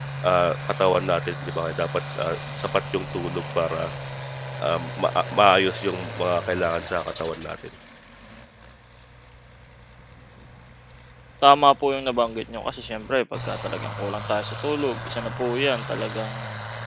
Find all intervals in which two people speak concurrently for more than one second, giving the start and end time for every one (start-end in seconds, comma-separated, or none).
none